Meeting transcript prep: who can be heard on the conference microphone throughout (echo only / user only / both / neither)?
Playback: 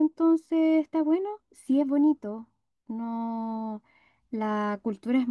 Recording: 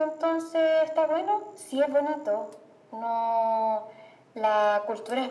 echo only